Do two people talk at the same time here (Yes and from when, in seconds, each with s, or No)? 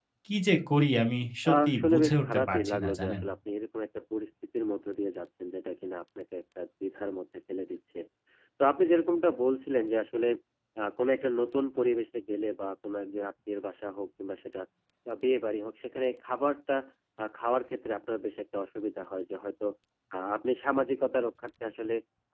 Yes, from 1.4 s